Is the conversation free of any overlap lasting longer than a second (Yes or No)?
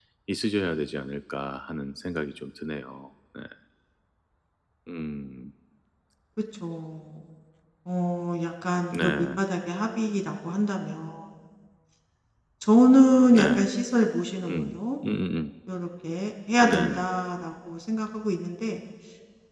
Yes